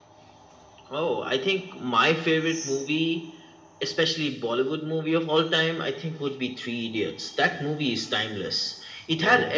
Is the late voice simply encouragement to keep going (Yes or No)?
Yes